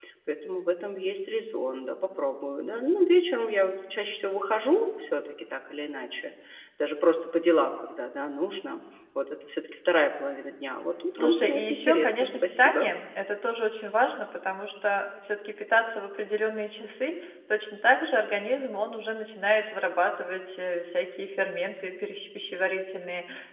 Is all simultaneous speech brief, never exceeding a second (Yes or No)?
No